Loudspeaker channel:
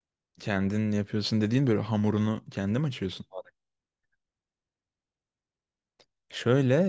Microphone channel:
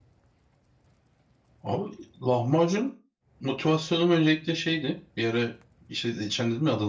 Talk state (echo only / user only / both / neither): user only